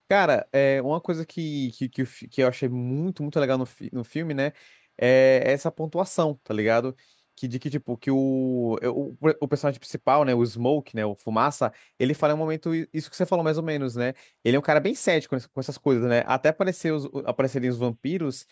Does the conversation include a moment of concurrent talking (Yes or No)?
No